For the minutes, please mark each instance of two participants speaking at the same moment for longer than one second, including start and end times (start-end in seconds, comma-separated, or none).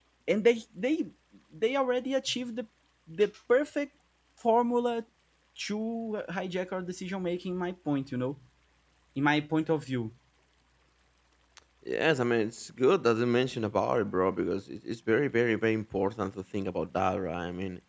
none